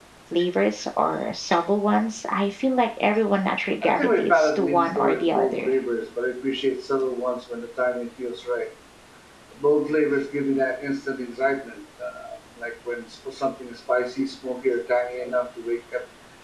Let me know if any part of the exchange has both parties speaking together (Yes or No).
Yes